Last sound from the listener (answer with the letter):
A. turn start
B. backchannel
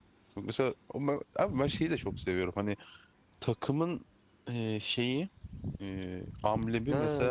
A